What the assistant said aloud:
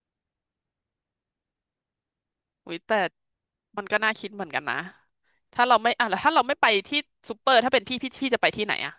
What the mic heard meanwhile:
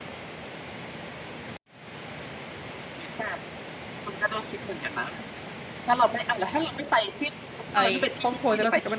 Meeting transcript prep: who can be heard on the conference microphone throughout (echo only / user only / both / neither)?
both